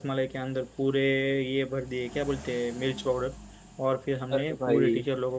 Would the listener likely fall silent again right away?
Yes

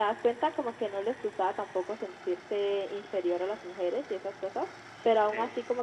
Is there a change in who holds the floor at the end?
No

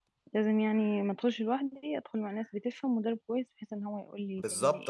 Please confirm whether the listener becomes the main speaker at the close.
Yes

